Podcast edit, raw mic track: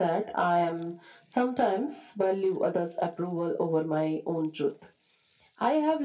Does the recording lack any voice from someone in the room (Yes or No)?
Yes